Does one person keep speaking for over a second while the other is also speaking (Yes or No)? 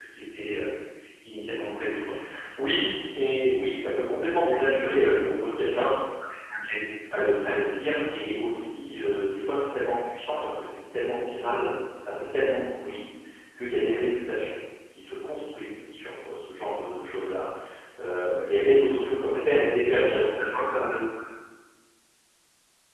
No